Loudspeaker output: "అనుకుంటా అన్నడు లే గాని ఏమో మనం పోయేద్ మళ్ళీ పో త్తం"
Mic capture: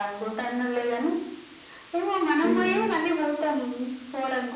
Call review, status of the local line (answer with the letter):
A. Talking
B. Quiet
A